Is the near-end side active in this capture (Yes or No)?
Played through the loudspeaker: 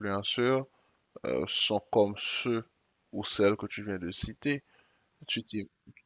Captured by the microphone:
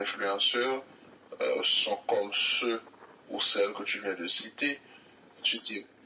No